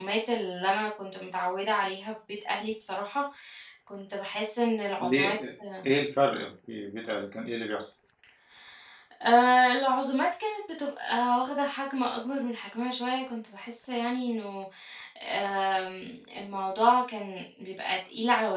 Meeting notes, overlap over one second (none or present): none